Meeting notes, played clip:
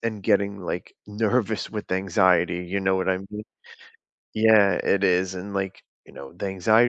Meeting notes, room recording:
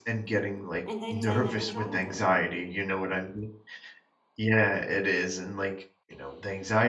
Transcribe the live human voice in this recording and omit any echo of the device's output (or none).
and they'd say nothing's wrong with her.